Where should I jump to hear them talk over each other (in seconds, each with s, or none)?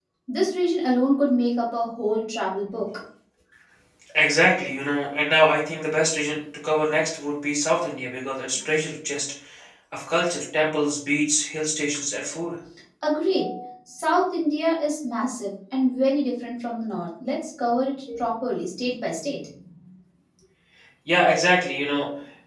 none